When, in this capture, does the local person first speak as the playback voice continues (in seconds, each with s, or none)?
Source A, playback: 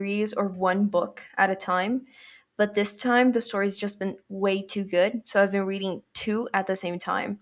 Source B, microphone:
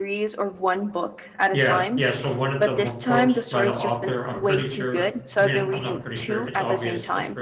1.5 s